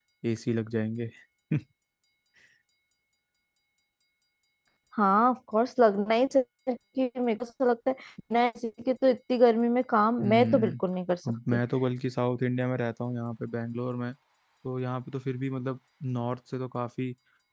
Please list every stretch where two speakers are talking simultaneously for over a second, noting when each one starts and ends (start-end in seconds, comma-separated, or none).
none